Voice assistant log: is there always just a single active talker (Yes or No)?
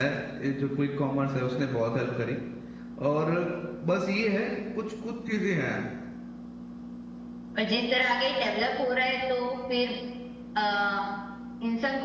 Yes